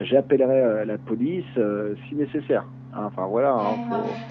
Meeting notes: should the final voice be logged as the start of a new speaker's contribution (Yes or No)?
Yes